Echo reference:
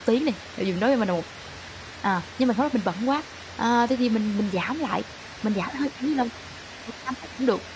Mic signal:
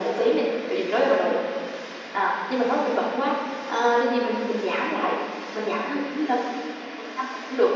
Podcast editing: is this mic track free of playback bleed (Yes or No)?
No